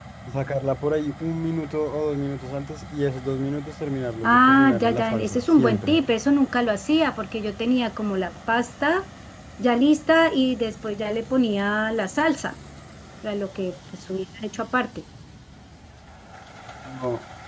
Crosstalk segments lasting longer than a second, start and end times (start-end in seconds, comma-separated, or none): 4.2-6.0